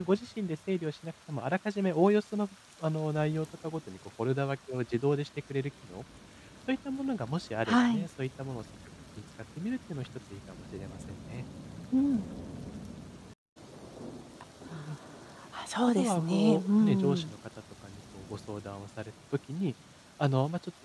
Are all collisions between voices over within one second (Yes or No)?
No